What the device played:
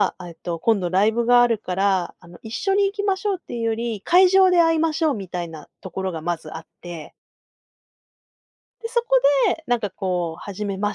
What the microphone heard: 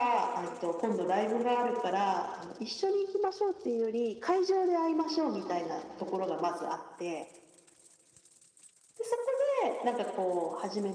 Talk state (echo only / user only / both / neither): echo only